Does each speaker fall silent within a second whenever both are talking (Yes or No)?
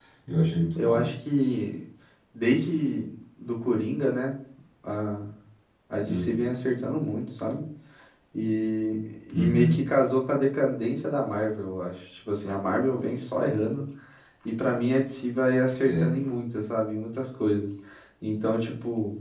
Yes